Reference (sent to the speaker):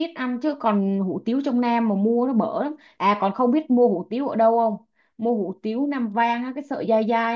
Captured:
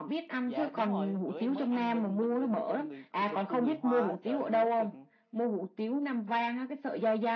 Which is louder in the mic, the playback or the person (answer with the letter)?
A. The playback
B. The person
A